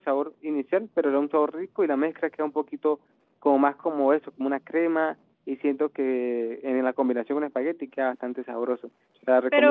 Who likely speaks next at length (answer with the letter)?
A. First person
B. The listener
B